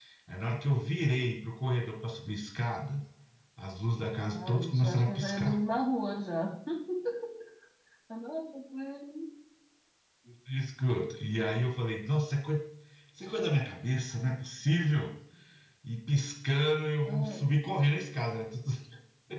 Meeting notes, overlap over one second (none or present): present